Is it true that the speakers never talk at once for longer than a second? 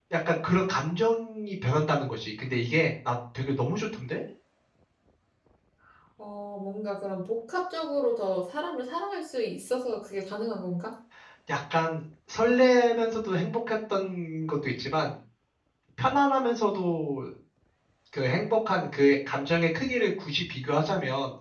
Yes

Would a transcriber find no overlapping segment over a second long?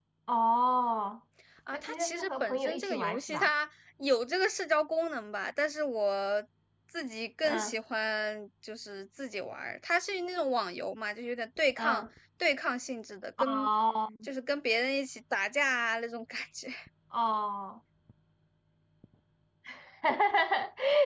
No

